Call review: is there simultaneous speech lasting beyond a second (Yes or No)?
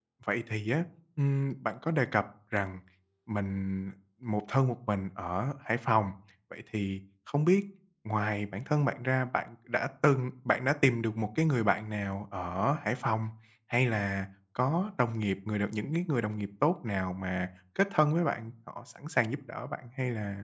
No